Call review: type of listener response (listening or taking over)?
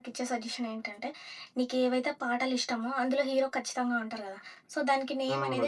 listening